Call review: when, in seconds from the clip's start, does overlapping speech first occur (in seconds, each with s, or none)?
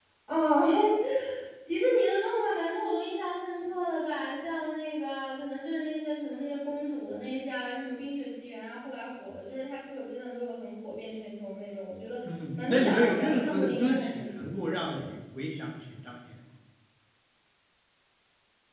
12.7 s